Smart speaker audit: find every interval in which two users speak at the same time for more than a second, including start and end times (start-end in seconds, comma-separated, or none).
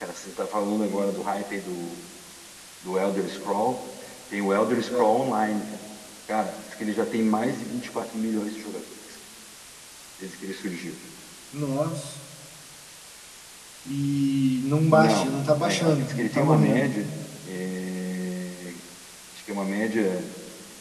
14.9-16.9